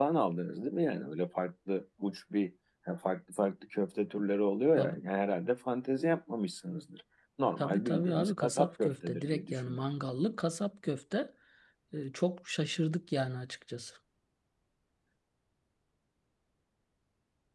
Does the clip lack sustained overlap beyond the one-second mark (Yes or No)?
No